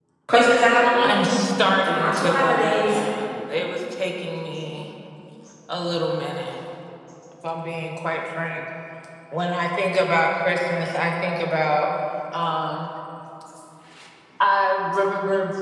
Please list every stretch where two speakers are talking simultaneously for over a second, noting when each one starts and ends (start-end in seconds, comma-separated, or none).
1.8-3.0